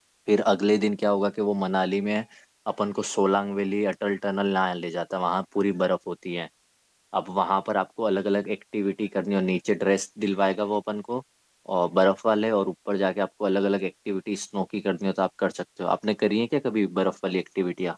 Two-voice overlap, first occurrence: none

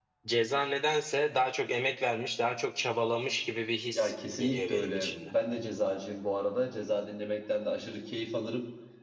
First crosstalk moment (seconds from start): 3.9 s

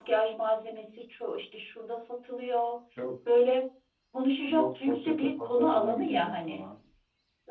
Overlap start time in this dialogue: 4.5 s

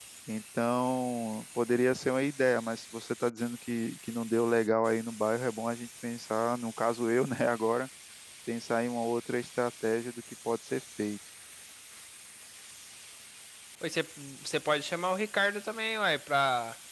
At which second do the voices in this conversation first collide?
none

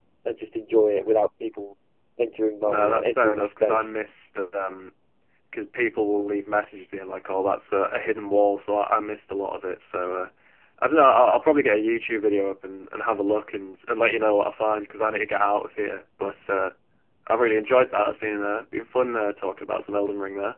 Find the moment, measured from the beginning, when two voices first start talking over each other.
2.6 s

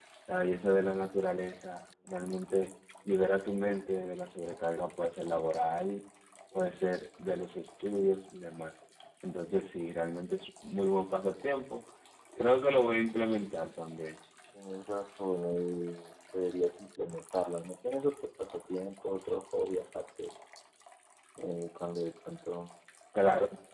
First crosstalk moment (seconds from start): none

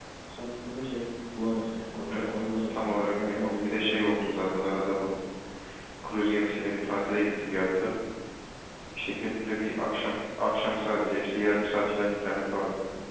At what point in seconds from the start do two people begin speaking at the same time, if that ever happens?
2.1 s

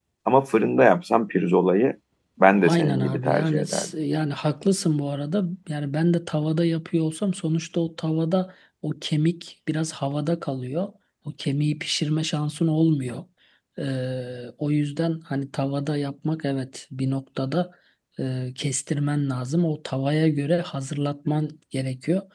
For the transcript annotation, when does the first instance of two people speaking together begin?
2.6 s

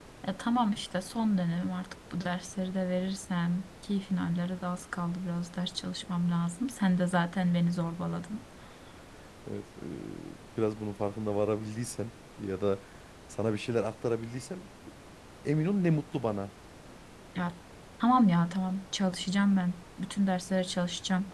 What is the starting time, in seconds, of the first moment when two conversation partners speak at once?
none

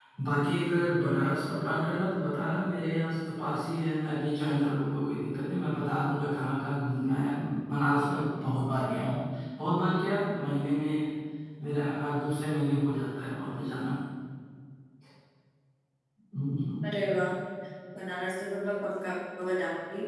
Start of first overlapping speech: none

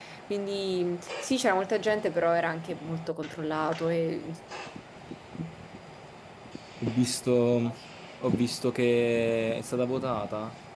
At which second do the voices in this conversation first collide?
none

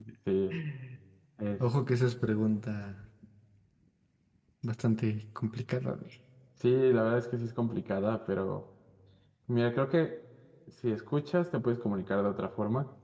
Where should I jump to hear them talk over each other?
none

